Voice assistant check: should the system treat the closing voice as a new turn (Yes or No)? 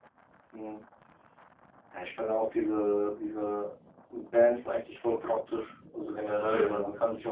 No